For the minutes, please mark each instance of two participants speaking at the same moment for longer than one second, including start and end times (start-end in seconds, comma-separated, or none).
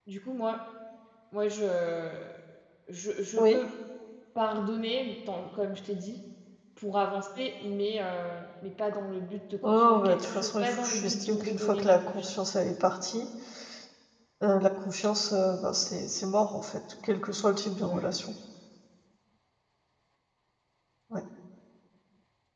9.6-12.4